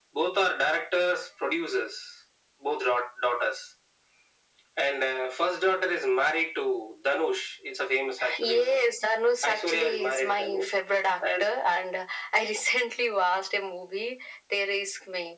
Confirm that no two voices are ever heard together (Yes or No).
No